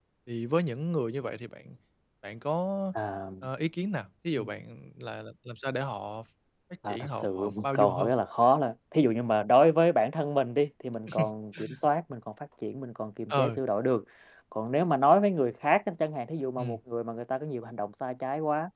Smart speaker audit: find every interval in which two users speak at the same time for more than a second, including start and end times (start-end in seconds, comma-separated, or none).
6.9-8.1